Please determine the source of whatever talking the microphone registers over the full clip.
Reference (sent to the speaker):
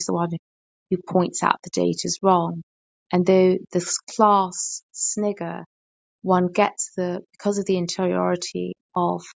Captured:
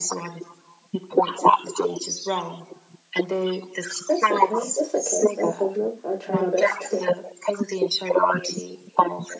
both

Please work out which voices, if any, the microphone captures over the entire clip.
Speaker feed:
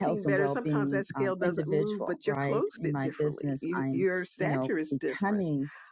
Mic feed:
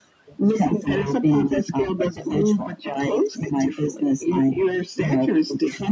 echo only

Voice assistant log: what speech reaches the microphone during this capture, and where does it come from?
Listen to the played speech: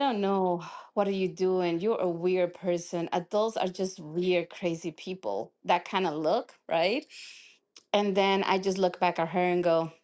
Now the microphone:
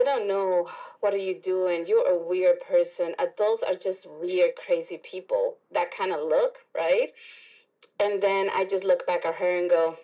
echo only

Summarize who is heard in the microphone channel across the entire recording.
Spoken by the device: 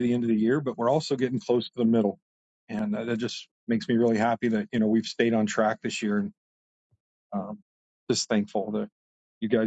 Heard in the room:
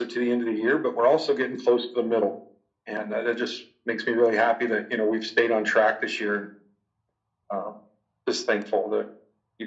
echo only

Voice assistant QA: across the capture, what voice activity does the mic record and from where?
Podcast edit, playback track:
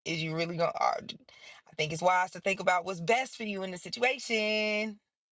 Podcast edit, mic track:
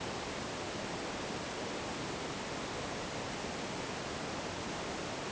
neither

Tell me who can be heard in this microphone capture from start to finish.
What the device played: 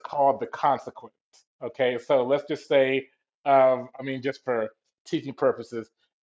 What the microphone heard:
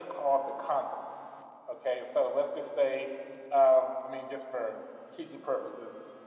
echo only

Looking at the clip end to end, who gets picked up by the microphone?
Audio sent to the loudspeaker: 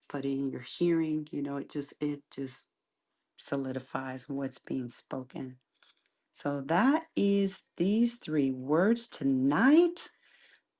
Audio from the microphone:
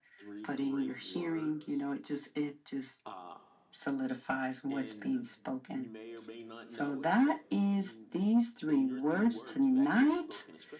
both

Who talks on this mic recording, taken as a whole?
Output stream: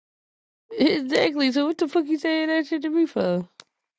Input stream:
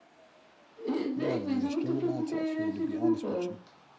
both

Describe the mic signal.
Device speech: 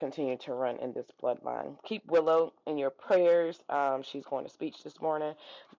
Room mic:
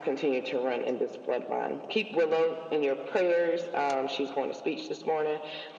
echo only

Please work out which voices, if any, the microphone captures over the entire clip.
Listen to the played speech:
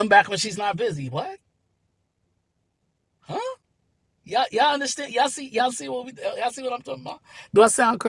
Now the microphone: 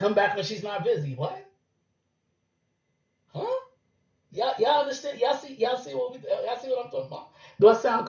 echo only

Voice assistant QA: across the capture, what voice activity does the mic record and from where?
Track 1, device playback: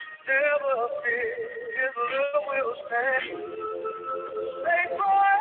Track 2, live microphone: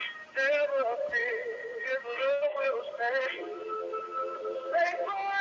echo only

